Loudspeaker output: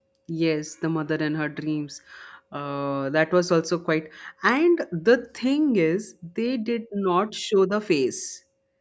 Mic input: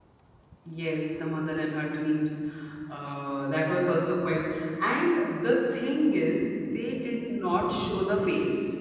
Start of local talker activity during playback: none

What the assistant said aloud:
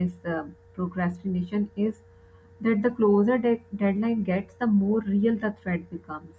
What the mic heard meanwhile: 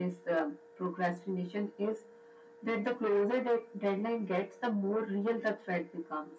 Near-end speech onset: none

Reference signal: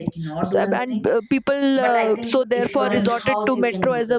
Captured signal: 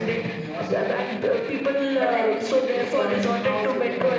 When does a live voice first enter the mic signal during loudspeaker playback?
none

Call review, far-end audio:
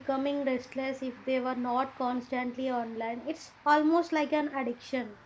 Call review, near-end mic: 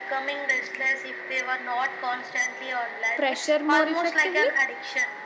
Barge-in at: 3.2 s

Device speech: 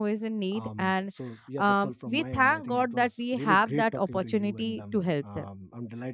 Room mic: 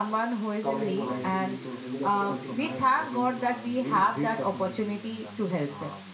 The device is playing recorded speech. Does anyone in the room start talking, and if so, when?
0.6 s

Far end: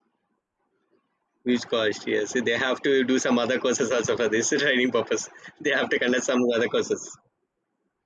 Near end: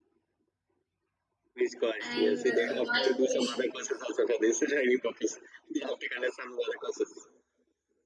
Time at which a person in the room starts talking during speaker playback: 2.0 s

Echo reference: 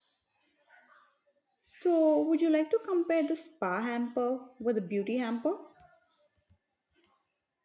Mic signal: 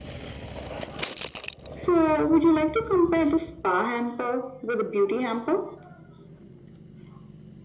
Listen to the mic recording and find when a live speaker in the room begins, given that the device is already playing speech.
none

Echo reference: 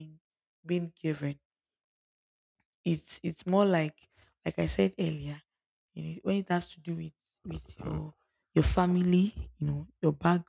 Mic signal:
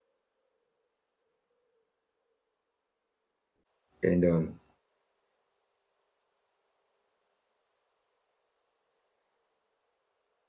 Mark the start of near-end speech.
4.0 s

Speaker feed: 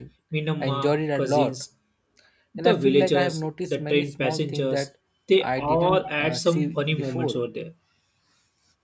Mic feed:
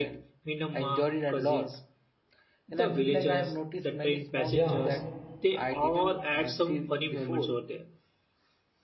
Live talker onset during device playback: 4.5 s

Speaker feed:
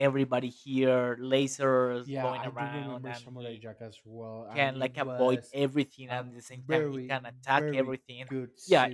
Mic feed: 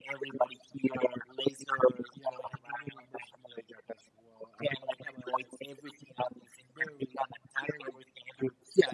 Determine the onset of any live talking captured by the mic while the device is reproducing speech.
none

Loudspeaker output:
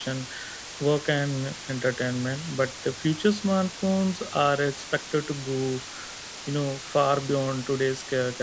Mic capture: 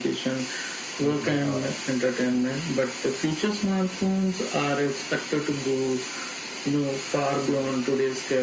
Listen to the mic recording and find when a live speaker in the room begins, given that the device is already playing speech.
1.0 s

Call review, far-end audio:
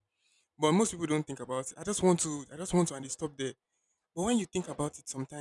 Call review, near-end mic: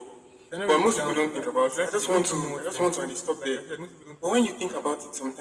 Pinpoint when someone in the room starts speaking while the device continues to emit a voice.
0.5 s

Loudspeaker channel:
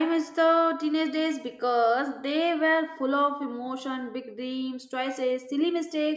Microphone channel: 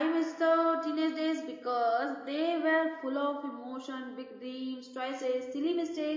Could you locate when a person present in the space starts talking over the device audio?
none

